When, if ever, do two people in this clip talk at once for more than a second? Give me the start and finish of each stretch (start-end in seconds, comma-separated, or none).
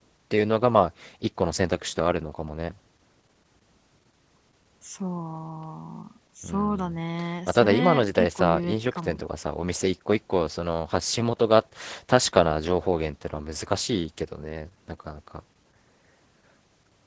7.5-9.2